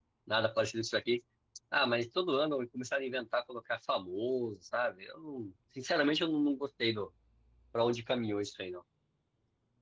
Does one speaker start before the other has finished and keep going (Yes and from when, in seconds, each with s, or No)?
No